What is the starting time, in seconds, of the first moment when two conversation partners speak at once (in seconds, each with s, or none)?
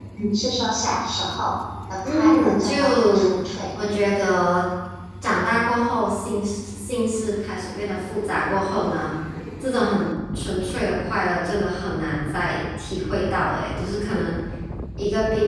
2.0 s